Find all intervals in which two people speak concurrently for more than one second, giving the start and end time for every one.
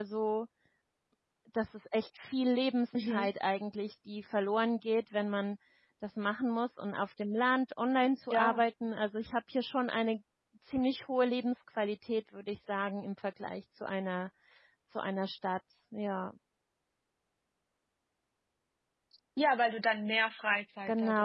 none

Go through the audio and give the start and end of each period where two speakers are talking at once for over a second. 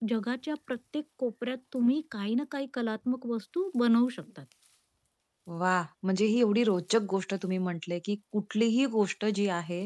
none

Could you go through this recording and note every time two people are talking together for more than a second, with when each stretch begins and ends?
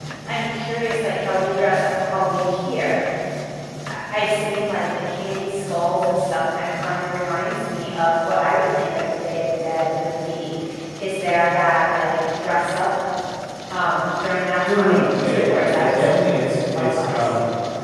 14.6-17.3

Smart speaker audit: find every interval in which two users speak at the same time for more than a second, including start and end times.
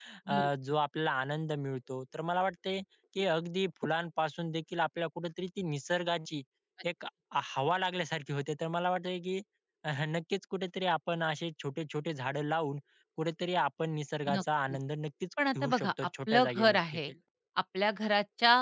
15.6-17.0

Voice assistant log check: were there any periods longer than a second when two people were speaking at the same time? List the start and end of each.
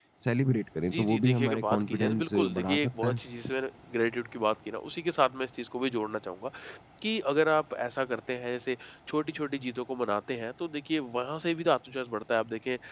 0.9-3.2

